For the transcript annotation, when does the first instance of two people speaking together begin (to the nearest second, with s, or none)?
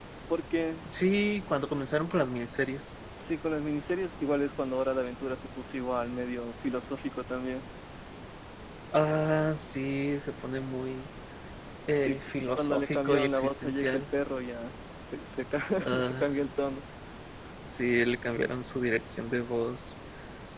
12 s